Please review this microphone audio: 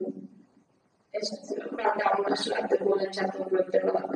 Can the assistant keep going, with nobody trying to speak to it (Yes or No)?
Yes